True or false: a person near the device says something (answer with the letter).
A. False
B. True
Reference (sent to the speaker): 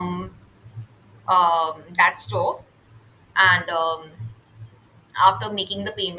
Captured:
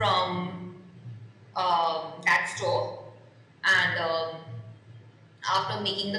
A